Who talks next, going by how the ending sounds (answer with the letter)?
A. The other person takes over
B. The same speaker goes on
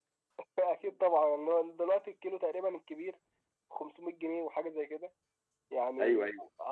B